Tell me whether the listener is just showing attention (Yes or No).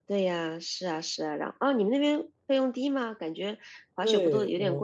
No